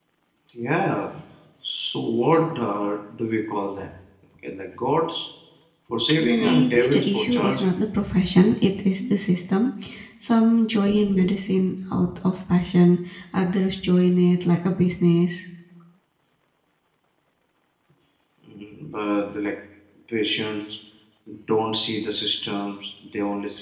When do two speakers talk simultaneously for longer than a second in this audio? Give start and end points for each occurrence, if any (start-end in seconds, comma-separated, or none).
6.4-7.7